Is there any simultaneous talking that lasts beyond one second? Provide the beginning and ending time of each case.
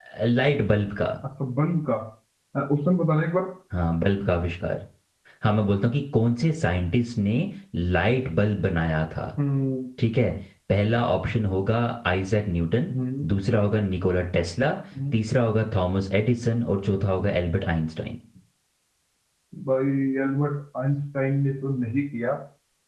none

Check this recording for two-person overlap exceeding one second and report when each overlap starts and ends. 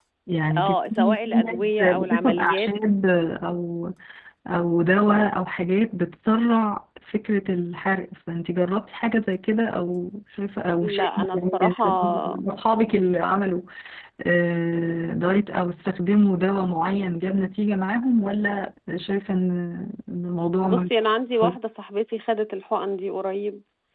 0.6-2.7, 10.8-12.4

